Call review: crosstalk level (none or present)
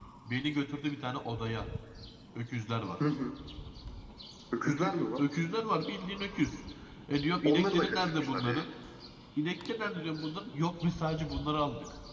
present